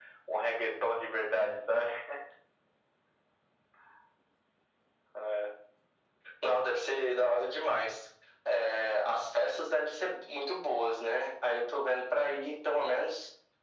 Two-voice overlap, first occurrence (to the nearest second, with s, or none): none